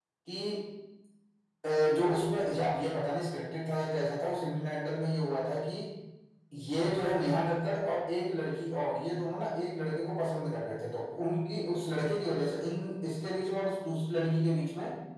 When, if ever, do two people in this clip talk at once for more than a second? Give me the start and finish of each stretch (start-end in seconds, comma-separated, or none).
none